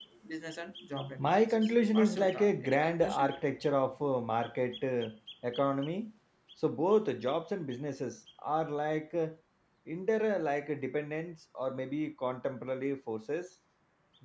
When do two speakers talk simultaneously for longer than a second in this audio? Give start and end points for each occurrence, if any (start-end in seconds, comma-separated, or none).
1.2-3.3